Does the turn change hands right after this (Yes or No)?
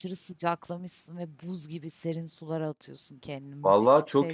Yes